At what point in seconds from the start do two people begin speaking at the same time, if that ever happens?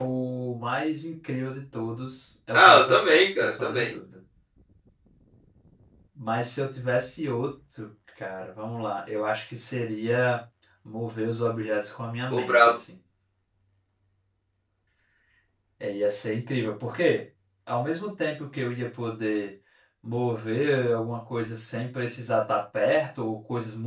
3 s

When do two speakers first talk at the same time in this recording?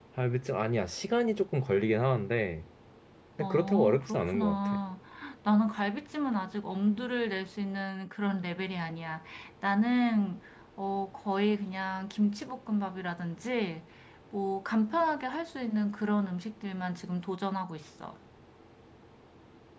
3 s

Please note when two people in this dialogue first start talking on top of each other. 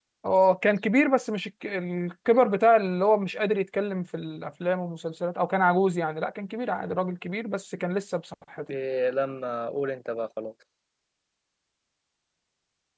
none

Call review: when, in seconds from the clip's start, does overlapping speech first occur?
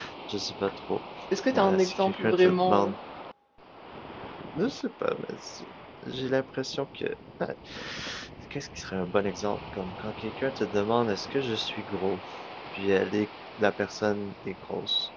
2 s

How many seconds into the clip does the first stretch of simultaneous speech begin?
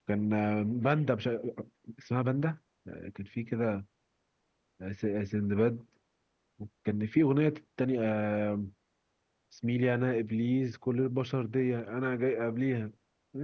none

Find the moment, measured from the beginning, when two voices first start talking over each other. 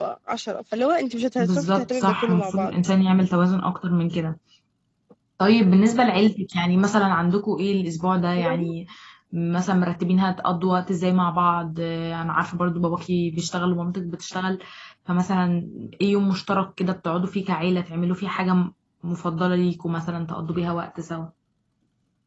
1 s

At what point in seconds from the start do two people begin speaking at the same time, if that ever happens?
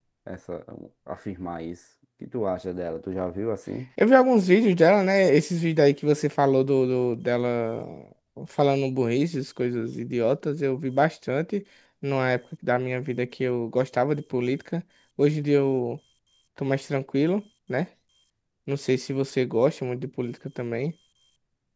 none

